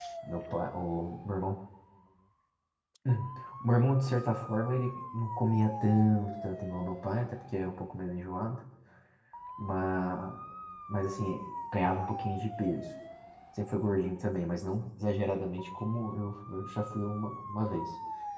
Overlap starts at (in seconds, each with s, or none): none